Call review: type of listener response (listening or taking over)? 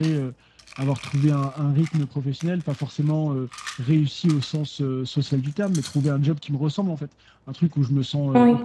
listening